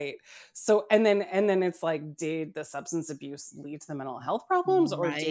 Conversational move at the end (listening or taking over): listening